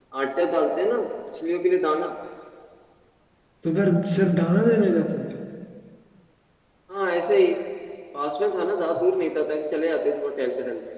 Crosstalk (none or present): none